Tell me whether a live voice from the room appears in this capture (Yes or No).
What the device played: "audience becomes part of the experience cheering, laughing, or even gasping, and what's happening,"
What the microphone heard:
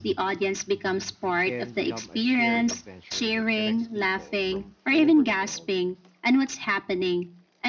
Yes